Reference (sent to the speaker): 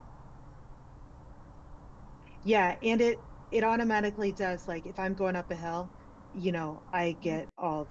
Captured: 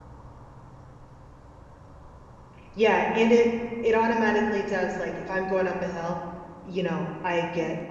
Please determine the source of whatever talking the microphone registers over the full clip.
echo only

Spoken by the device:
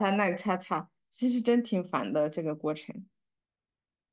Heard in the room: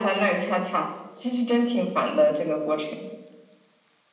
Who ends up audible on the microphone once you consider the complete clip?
echo only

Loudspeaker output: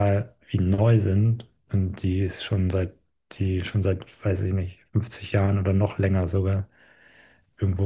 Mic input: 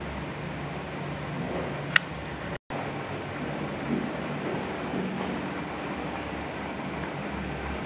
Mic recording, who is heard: neither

